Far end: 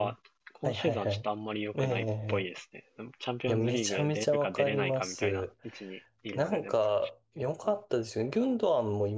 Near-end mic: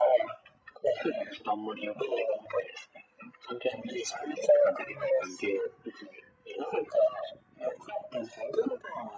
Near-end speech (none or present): none